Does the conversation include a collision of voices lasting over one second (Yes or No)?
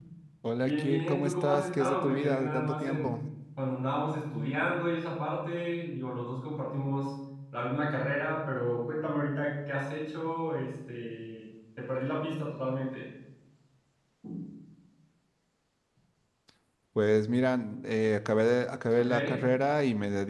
Yes